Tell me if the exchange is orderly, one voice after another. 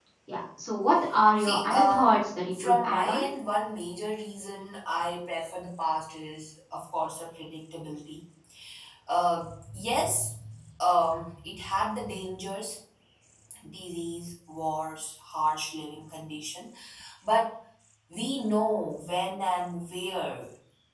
No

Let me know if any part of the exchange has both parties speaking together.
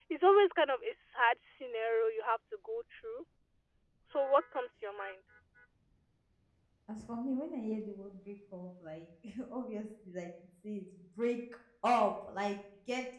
No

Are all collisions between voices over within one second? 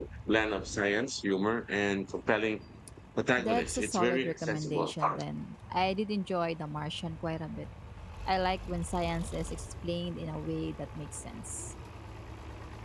No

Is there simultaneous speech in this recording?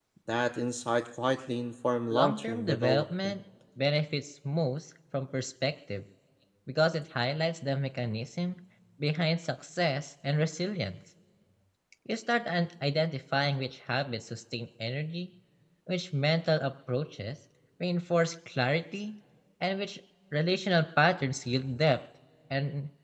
Yes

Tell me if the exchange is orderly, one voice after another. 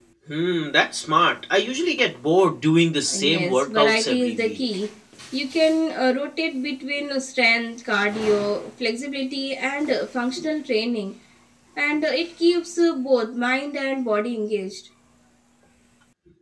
No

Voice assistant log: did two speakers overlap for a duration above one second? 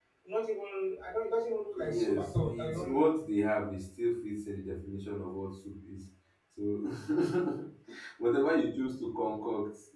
Yes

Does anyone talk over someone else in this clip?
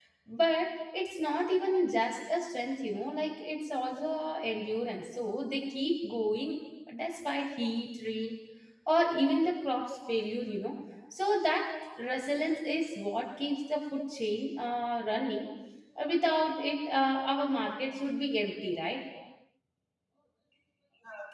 No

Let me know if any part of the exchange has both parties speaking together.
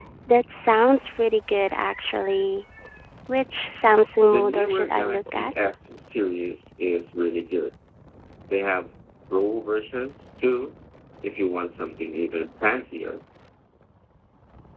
Yes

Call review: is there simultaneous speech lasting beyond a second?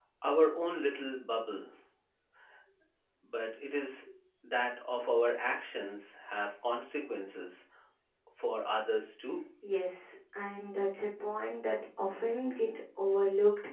No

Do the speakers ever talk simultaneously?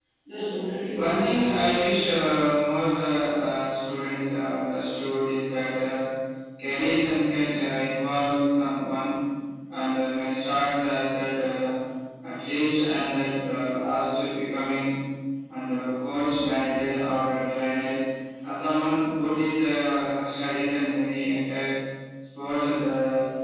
Yes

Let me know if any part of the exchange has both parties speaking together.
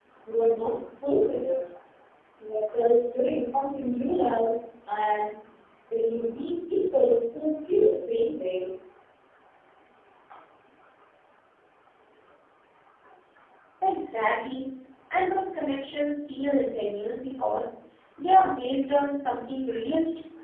No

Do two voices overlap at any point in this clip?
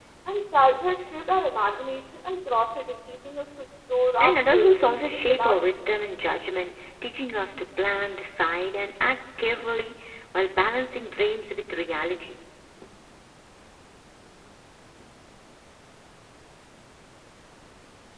Yes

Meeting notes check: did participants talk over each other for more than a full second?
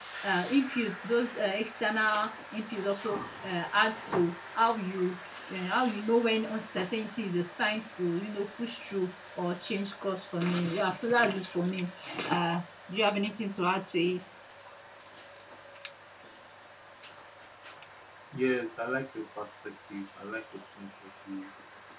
No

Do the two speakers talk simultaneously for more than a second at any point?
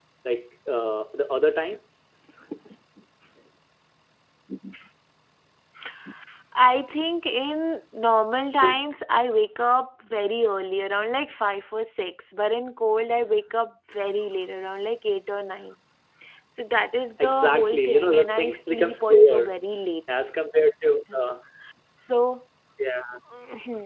Yes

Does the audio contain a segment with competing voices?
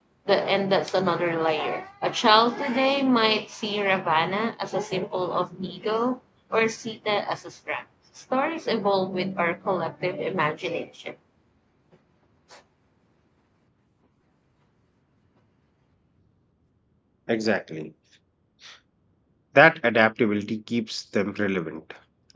No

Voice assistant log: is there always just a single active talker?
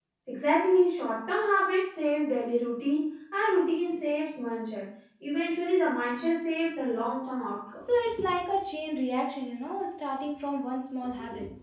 Yes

